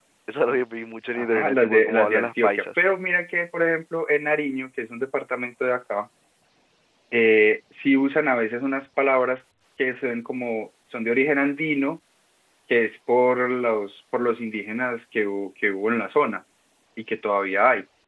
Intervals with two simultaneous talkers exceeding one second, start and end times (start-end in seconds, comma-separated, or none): 1.1-2.8